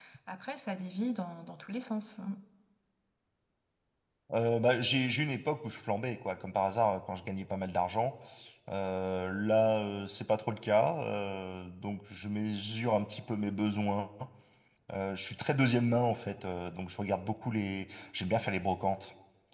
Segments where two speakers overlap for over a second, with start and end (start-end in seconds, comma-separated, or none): none